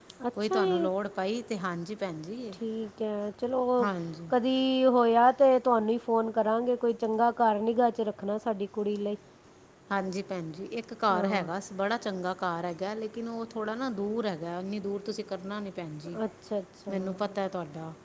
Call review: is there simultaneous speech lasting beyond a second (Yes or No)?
No